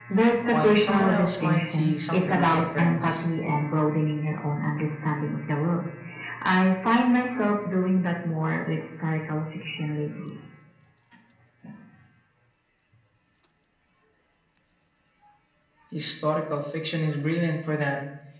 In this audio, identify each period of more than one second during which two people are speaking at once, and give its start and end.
0.5-3.2

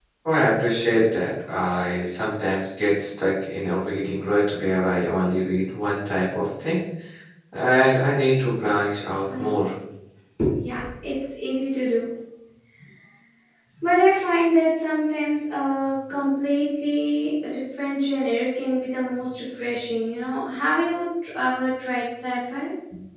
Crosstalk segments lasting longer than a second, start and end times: none

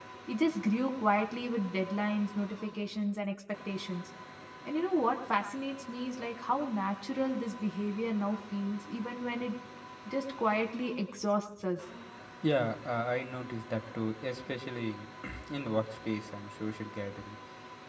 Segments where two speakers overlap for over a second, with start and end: none

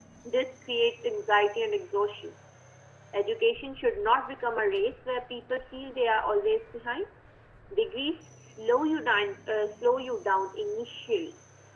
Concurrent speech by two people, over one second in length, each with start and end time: none

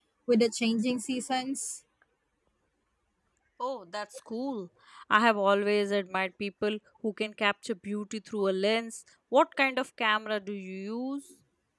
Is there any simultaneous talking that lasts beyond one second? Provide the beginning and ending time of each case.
none

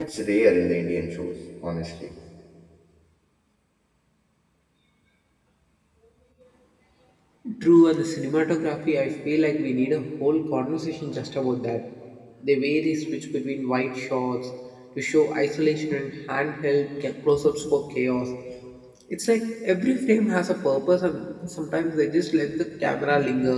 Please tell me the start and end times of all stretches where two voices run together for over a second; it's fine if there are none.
none

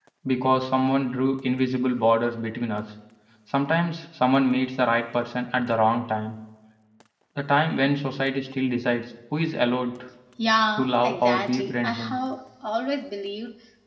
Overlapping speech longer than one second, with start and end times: 10.8-12.2

